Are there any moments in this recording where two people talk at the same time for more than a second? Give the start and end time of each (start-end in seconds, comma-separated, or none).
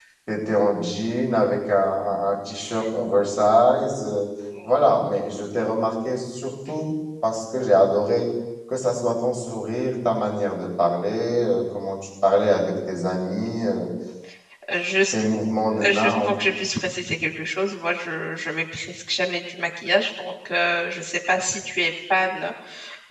none